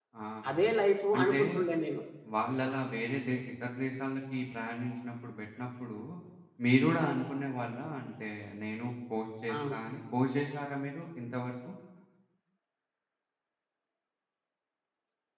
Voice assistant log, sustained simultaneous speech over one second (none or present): none